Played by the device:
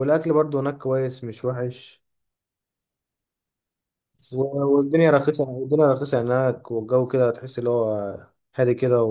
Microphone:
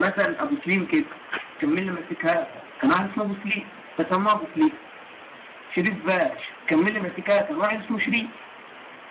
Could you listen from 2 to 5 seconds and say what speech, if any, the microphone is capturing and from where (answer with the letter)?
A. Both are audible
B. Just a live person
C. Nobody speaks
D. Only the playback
B